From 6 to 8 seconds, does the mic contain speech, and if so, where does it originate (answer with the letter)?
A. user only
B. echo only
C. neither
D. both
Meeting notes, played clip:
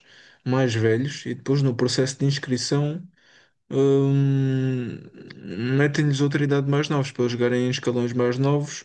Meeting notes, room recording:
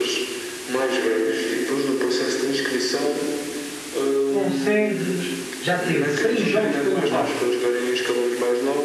D